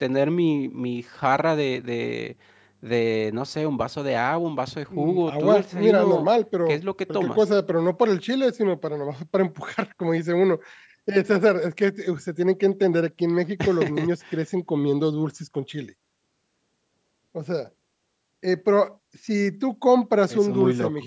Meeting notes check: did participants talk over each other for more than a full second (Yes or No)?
Yes